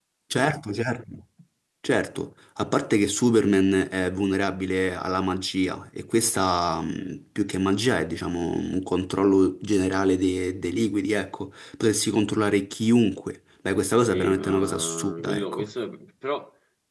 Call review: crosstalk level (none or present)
present